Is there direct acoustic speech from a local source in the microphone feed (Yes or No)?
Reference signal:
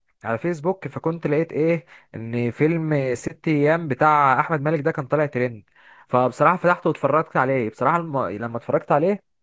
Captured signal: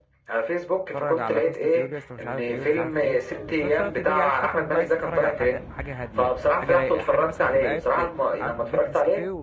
Yes